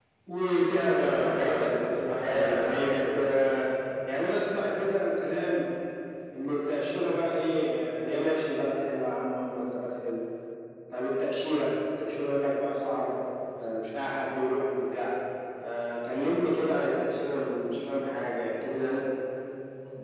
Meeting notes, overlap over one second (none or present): present